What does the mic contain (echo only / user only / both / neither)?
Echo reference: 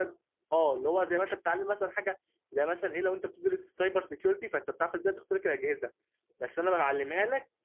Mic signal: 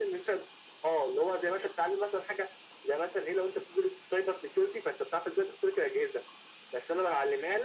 echo only